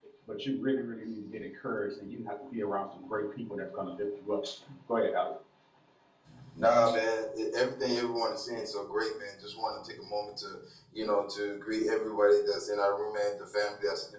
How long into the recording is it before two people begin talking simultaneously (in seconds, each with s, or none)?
none